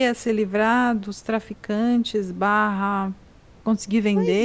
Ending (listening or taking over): taking over